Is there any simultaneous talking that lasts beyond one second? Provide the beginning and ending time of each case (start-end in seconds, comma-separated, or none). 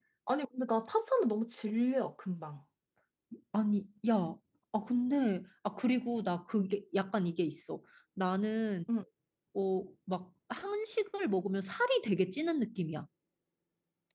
none